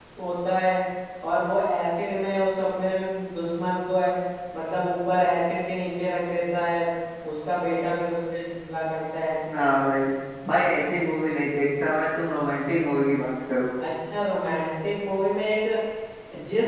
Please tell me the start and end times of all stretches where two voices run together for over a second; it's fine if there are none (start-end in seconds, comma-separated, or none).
none